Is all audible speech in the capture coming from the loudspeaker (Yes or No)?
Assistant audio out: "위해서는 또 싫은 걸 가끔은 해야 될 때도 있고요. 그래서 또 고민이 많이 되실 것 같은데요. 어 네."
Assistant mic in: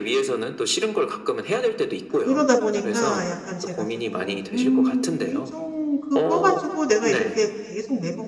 No